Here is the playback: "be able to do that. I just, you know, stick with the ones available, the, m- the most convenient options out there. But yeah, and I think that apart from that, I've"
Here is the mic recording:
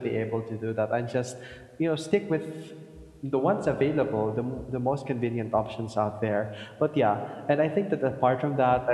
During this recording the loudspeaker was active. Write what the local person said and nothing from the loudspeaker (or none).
none